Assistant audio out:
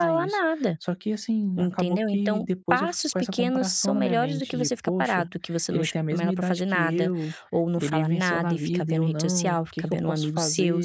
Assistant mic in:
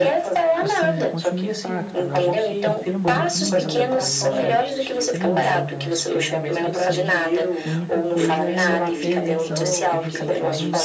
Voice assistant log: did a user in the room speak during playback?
Yes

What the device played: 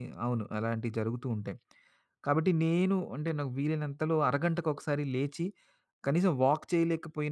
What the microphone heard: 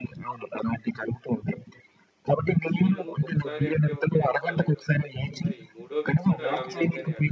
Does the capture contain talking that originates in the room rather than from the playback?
Yes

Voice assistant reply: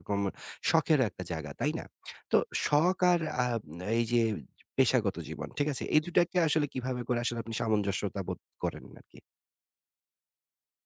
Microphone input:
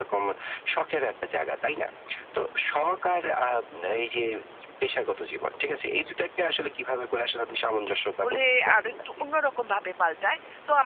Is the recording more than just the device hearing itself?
Yes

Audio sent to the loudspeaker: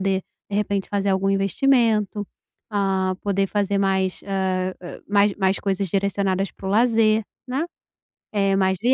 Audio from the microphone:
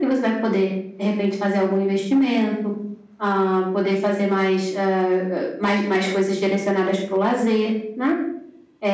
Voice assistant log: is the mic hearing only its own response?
Yes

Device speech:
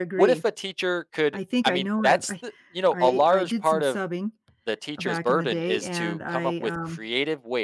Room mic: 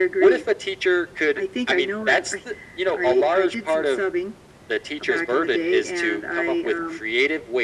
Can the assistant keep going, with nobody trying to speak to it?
Yes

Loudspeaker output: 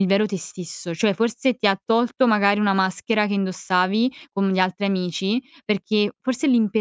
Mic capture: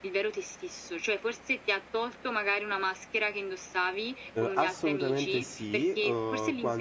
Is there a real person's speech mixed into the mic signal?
Yes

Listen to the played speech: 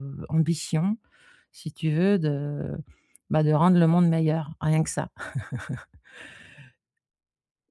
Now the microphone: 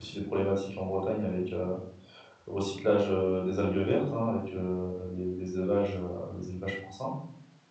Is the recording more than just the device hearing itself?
Yes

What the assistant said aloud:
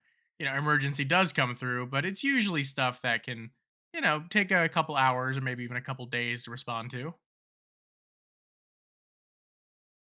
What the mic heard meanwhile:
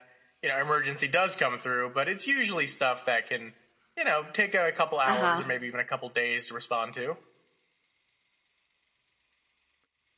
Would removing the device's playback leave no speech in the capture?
No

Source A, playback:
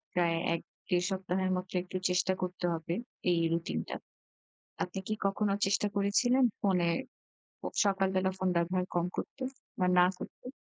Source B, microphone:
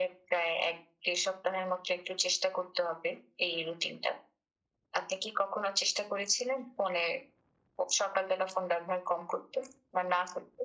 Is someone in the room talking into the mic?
No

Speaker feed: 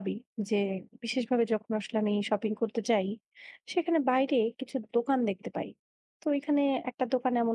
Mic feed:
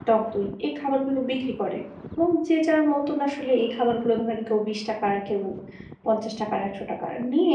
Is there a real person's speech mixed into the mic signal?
Yes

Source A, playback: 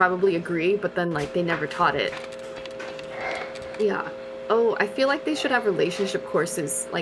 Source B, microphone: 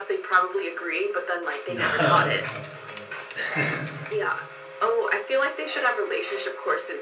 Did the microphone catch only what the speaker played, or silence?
No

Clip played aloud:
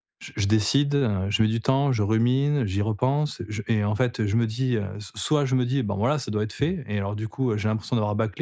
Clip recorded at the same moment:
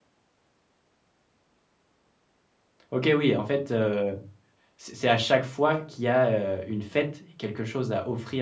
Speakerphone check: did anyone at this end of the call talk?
Yes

